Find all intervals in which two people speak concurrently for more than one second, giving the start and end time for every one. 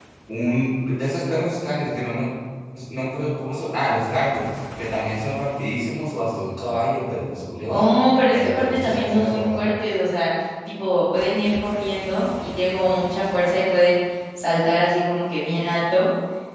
8.3-9.6

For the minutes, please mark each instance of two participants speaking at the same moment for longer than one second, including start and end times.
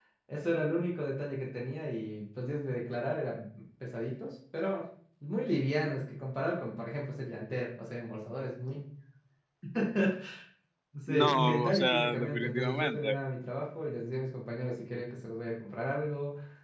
11.1-13.2

